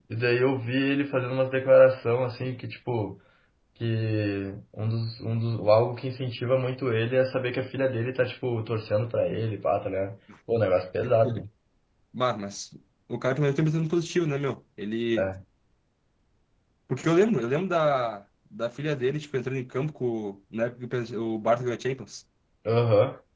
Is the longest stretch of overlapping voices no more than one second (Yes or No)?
Yes